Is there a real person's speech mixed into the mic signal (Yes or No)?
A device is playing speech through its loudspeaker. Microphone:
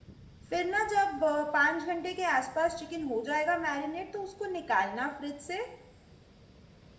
Yes